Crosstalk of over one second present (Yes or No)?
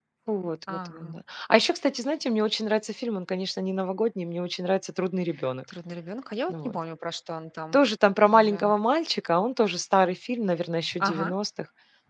No